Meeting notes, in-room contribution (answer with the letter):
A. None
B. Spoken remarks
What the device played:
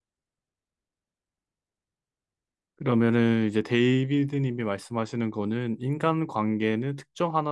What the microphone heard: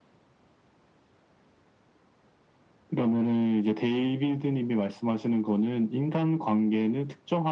A